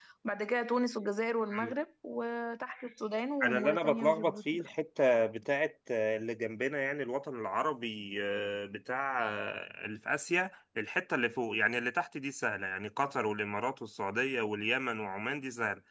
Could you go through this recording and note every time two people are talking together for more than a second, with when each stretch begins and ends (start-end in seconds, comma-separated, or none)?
3.4-4.7